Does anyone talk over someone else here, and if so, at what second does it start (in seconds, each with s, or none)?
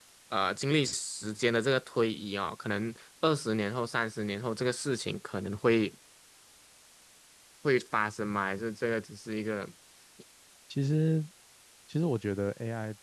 none